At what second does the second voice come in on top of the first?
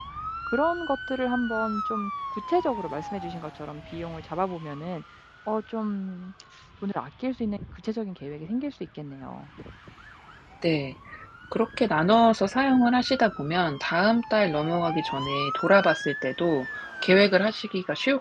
none

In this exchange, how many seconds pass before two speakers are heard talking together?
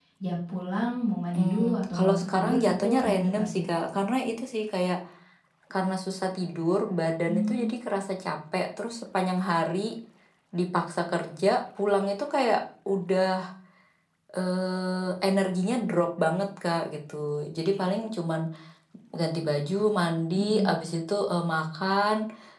1 s

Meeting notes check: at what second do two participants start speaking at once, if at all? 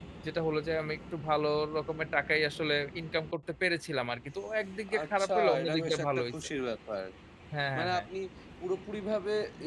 5 s

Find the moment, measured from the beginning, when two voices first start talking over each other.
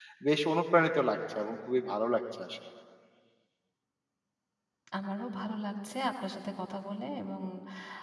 none

